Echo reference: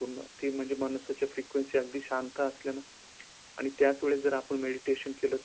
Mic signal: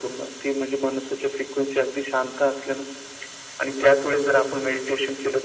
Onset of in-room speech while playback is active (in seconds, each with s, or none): none